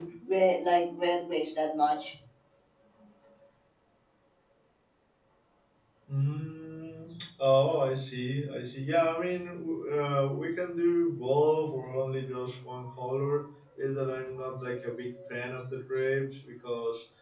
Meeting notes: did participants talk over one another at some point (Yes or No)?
No